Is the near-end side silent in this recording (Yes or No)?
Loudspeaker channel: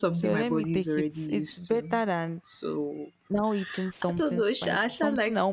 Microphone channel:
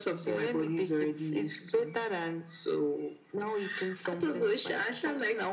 Yes